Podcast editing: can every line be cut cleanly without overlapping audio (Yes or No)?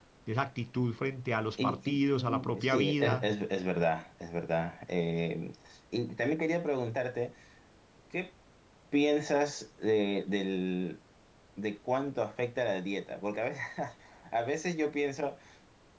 No